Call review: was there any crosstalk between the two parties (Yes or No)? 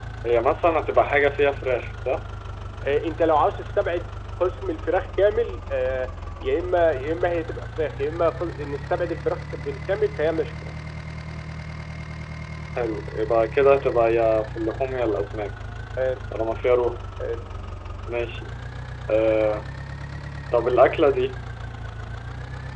No